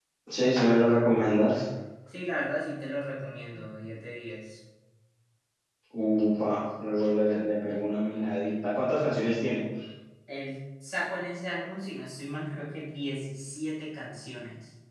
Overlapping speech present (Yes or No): No